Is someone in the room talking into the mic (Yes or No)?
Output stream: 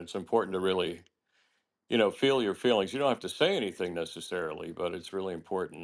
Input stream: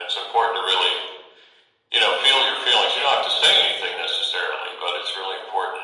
No